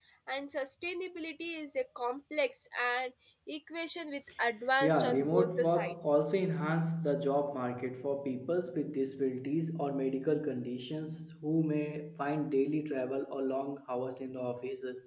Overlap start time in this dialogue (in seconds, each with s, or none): 4.8 s